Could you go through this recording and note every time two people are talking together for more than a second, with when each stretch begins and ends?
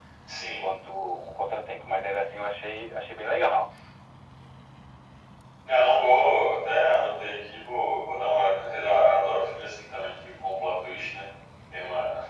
none

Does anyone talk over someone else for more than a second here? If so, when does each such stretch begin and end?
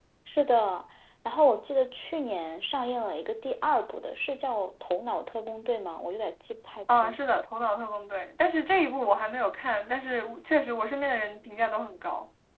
none

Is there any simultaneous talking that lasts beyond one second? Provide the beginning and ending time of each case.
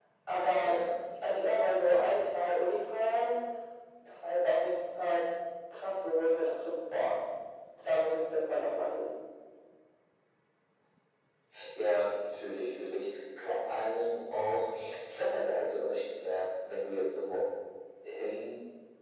none

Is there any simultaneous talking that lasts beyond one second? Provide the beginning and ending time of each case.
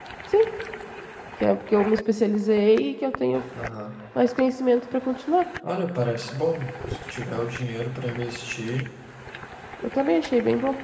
none

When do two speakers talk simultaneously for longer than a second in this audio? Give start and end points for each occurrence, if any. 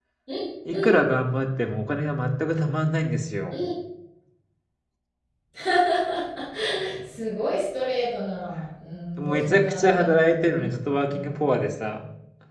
9.2-10.7

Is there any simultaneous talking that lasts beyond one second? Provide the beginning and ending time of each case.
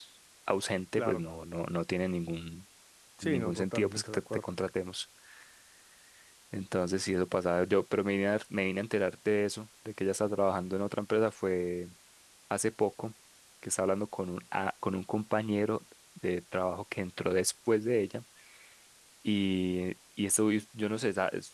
3.2-4.5

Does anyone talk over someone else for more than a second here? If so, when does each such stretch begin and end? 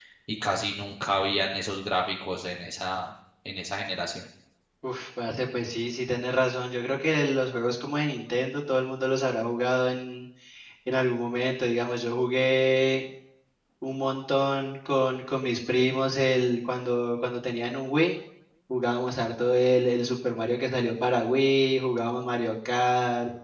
none

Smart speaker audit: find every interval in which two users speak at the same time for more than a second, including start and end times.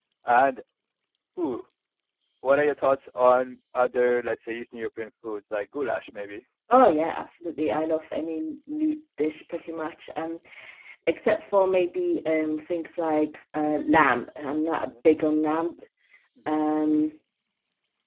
none

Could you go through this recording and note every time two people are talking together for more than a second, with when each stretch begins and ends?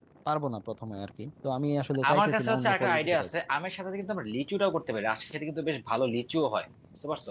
2.1-3.3

